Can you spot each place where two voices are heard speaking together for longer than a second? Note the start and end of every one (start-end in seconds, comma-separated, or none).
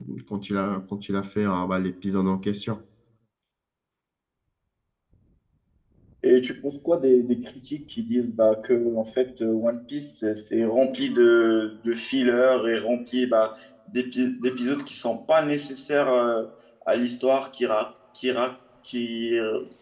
none